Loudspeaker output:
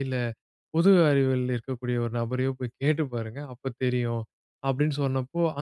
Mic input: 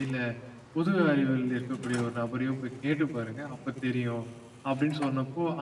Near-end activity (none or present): none